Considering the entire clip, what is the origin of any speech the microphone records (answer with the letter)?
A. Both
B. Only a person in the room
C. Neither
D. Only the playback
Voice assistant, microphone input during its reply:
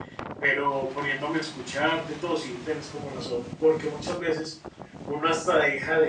D